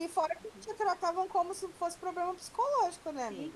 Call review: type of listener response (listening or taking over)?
taking over